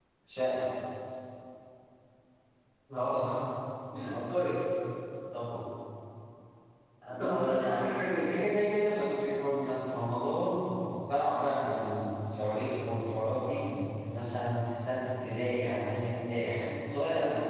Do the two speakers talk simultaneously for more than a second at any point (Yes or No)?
Yes